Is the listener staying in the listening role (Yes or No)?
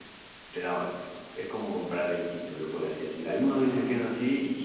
Yes